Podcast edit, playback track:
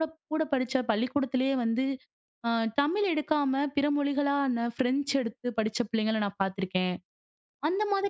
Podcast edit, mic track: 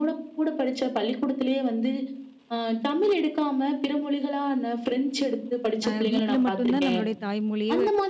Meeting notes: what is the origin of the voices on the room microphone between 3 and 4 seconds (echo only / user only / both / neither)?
echo only